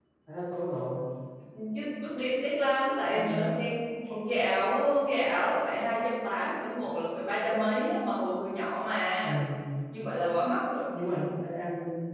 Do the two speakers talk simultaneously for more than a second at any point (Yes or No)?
No